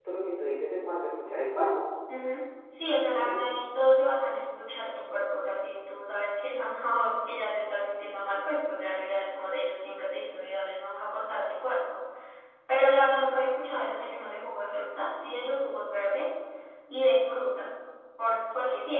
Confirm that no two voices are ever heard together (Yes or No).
Yes